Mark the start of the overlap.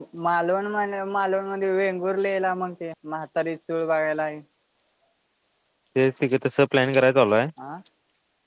none

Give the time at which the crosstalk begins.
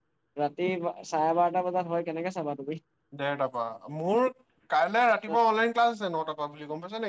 none

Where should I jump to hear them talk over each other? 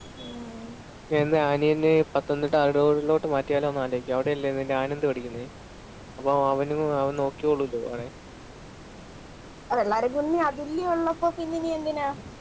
none

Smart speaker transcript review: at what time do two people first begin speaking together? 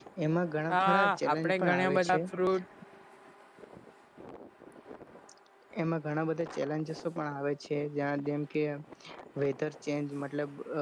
0.7 s

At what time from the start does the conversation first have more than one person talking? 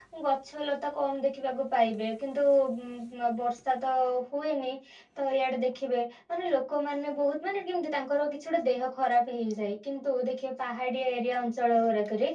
none

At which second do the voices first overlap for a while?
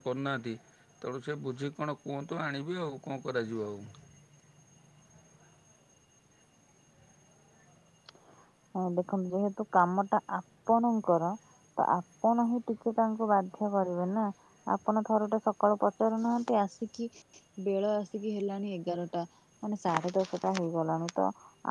none

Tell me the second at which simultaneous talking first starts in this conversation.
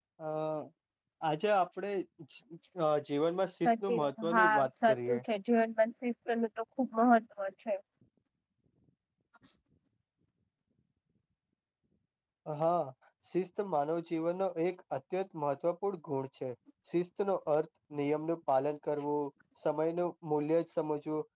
3.6 s

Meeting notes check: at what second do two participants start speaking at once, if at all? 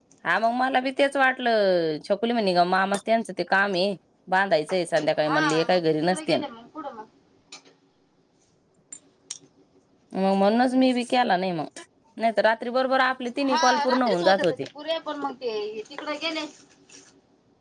5.2 s

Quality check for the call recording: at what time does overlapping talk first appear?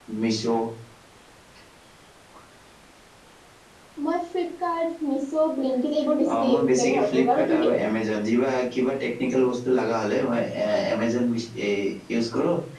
6.2 s

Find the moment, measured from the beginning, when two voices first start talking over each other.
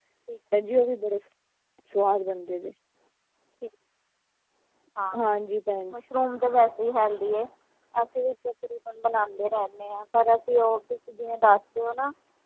none

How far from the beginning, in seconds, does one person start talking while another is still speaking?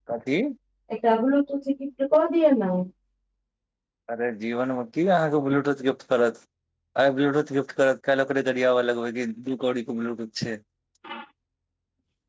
none

